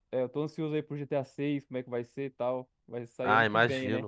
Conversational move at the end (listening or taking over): taking over